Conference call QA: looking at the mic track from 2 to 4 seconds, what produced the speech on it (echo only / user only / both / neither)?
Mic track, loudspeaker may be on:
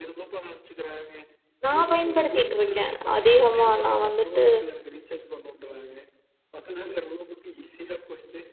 both